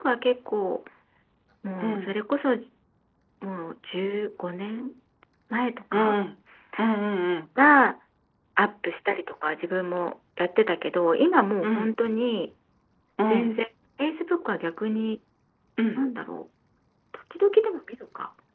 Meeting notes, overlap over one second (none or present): none